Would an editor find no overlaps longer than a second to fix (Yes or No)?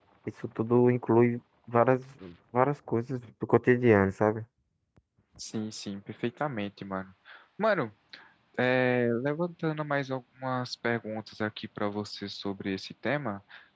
Yes